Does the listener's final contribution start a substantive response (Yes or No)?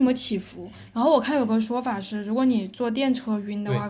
No